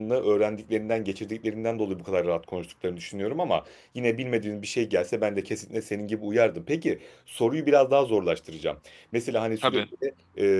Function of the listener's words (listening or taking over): listening